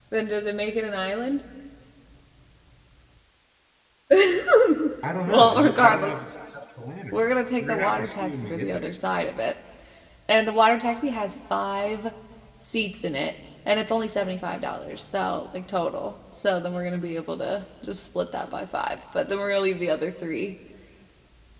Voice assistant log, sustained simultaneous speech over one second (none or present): present